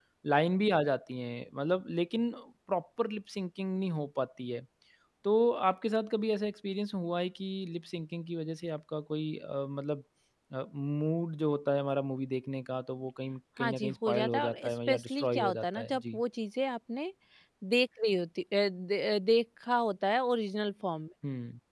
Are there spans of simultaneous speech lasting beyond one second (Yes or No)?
Yes